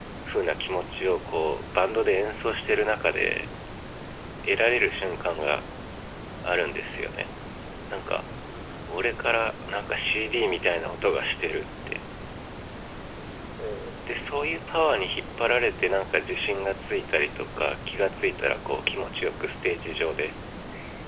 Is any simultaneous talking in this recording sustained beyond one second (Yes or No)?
No